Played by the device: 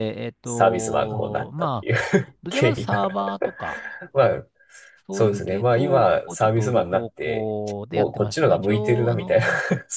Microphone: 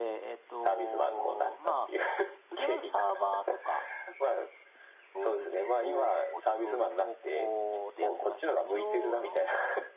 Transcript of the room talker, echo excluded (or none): none